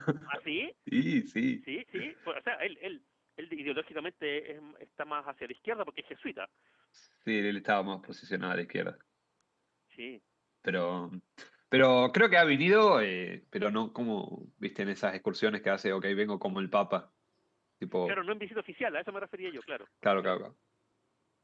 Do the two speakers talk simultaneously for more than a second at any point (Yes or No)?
No